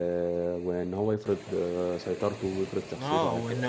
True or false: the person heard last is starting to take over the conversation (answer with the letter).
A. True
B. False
A